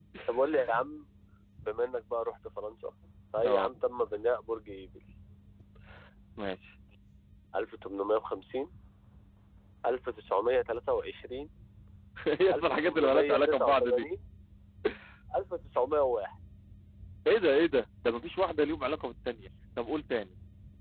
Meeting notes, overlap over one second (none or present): present